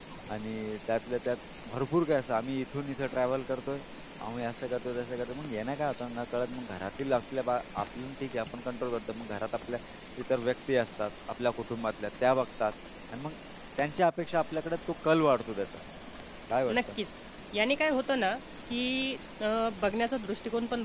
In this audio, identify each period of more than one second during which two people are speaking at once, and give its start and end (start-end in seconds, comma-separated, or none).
none